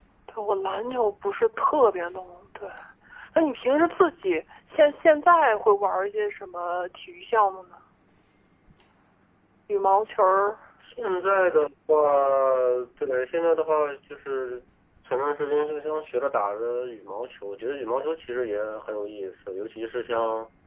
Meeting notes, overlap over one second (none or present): none